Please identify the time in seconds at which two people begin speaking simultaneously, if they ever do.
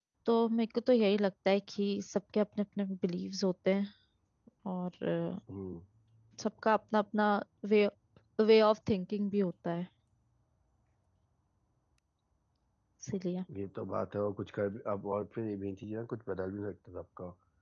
none

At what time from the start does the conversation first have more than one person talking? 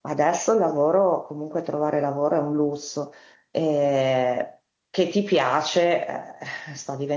none

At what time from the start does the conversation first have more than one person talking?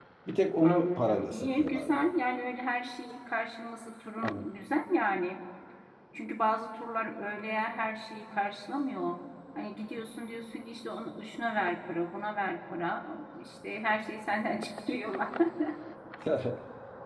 1 s

